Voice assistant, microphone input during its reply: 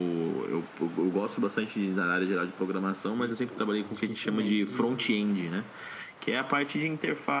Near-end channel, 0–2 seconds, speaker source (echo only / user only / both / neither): echo only